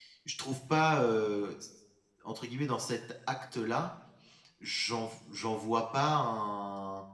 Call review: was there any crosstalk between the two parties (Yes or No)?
No